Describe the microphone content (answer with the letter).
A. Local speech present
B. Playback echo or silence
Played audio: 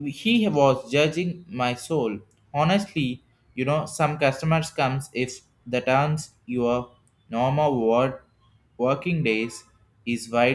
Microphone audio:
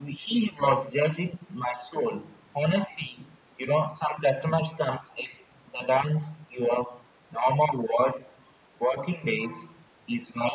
B